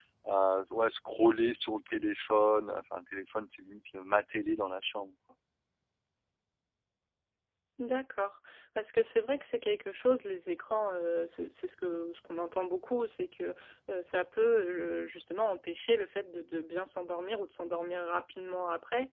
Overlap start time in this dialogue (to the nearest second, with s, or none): none